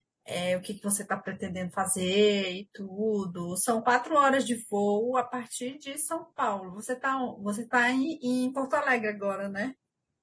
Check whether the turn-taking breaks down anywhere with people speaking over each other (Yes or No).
No